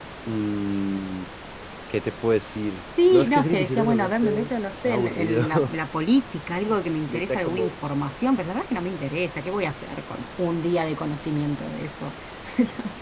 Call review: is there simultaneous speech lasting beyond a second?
Yes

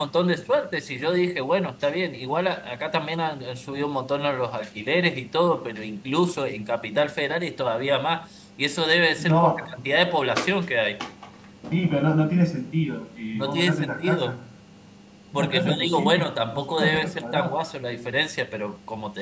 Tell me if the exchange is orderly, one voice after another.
No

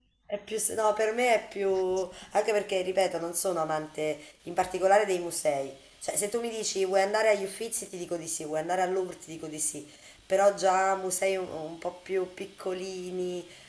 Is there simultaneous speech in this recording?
No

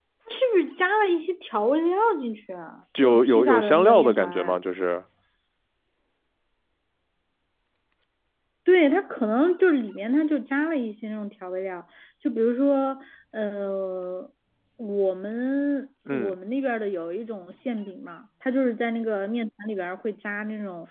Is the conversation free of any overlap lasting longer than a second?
No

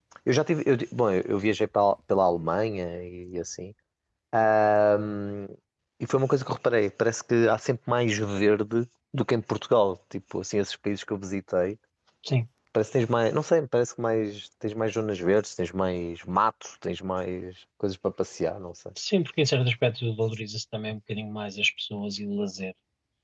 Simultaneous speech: No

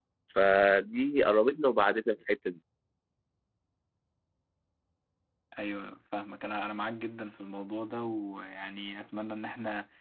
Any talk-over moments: No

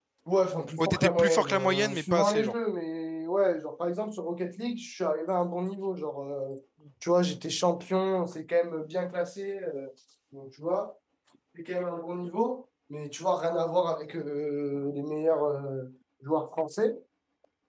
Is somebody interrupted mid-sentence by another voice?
Yes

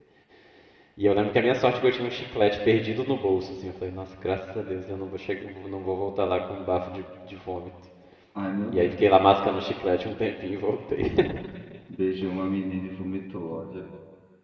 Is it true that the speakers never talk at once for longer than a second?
Yes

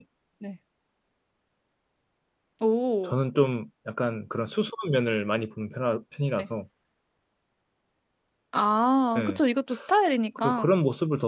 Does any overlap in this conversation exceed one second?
No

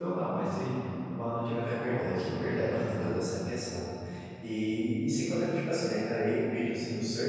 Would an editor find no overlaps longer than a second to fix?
No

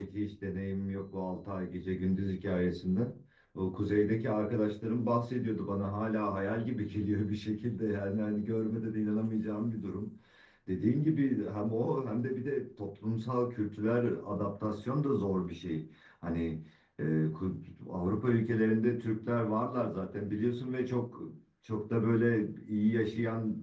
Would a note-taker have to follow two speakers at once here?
No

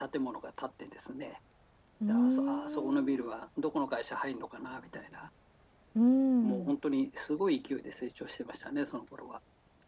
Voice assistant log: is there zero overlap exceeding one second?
No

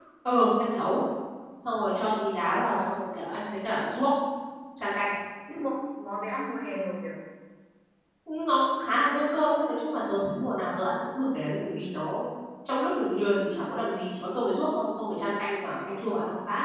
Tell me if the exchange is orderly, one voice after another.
Yes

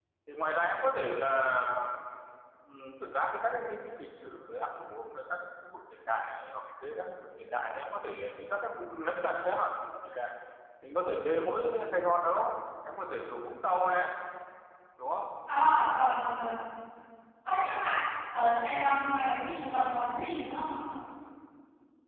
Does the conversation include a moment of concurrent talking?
No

